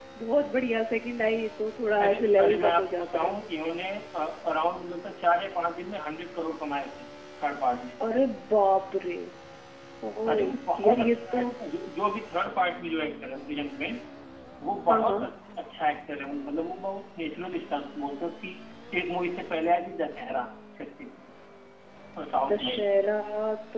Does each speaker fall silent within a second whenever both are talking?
No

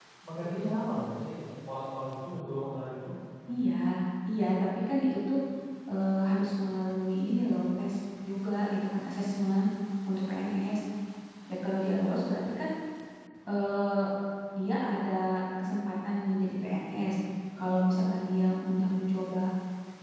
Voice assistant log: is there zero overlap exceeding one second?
Yes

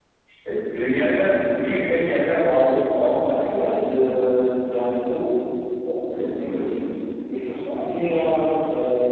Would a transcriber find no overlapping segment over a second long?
Yes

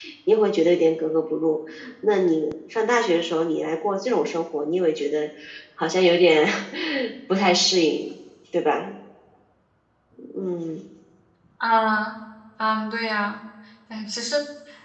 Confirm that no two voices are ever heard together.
Yes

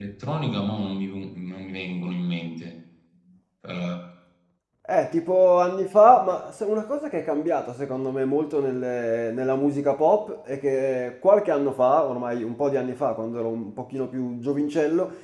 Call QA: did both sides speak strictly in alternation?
Yes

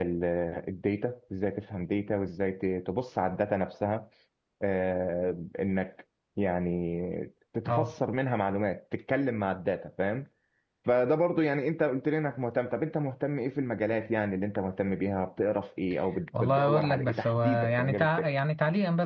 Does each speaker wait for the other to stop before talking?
No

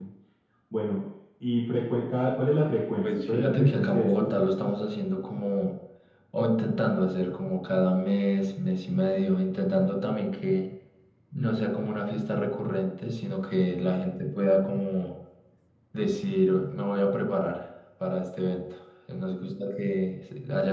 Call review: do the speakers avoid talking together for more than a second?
No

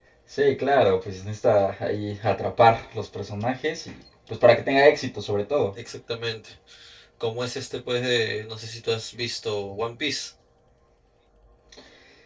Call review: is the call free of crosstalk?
Yes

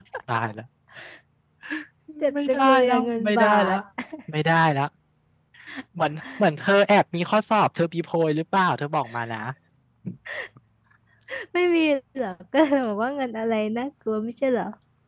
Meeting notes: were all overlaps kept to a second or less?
No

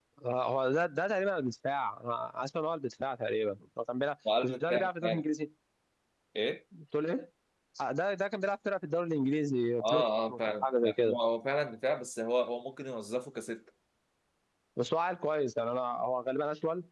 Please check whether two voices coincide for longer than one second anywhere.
Yes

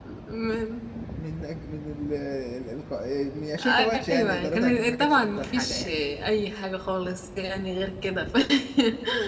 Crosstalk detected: Yes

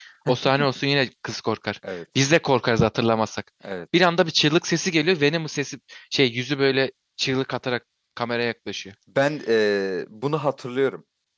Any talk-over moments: No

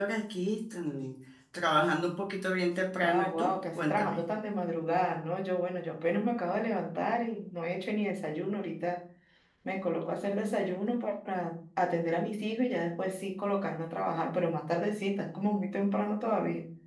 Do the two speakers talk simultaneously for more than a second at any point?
Yes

